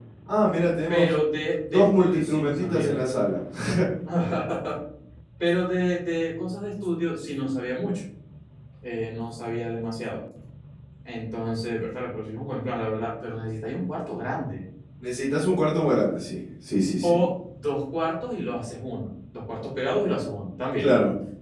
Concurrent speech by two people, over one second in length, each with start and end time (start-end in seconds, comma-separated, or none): 1.7-3.0